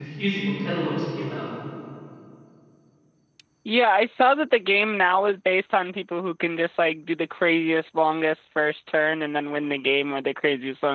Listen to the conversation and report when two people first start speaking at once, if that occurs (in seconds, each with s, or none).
none